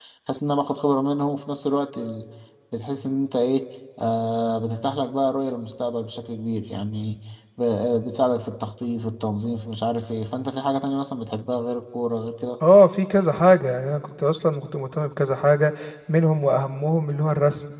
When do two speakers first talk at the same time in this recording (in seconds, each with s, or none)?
none